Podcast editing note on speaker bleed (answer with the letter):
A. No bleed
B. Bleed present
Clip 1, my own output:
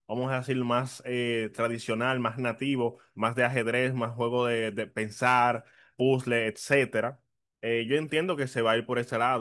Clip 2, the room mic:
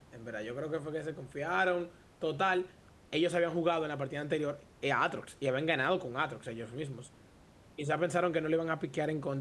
A